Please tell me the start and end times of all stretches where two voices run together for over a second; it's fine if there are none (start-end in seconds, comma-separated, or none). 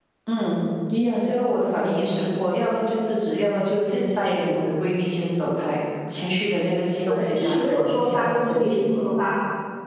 7.1-9.1